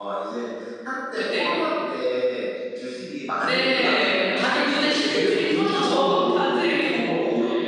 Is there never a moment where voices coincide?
No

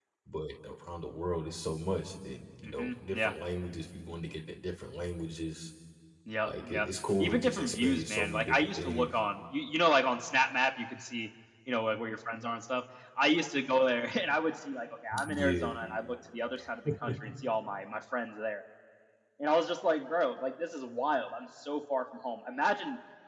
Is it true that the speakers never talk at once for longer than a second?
No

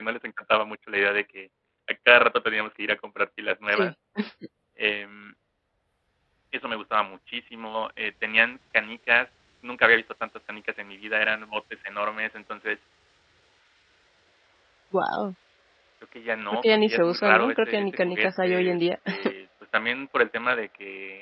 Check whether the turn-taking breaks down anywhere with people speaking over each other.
Yes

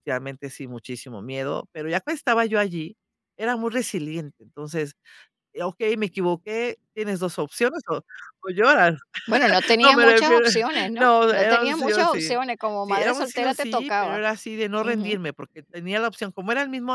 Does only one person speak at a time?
No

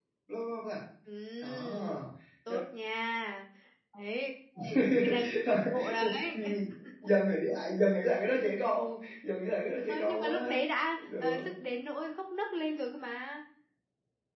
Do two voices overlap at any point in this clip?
Yes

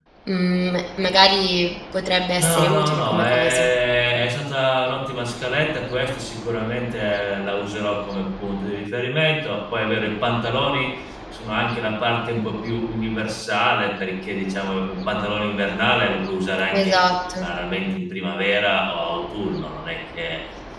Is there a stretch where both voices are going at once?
Yes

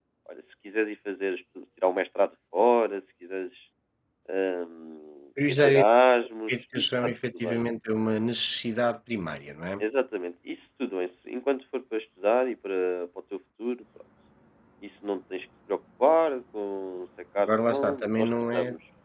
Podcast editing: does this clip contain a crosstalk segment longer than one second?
Yes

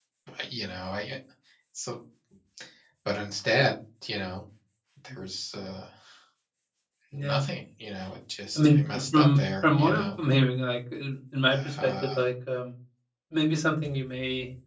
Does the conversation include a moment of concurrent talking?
Yes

